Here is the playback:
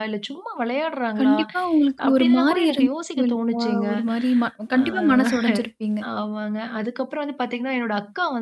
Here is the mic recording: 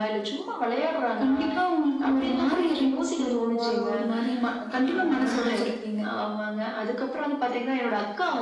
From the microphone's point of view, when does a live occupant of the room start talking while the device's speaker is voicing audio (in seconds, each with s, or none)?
none